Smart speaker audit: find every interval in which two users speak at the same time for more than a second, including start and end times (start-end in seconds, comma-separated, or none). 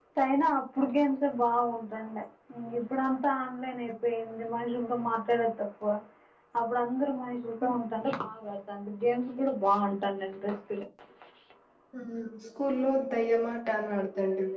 none